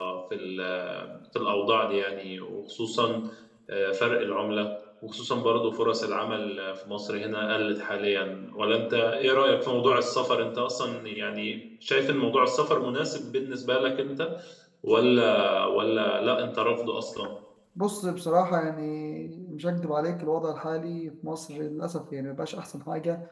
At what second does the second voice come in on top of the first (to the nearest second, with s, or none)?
none